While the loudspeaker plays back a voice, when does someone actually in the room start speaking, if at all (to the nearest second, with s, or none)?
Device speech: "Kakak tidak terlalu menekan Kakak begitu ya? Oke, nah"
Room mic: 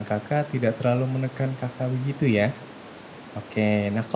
none